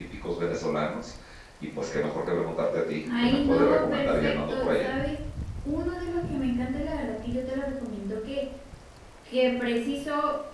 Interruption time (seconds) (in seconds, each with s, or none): 3.0 s